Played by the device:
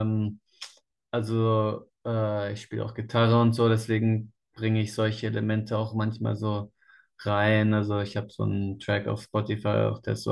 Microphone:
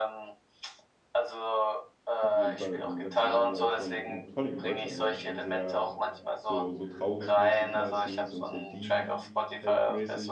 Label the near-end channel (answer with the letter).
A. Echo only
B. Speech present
B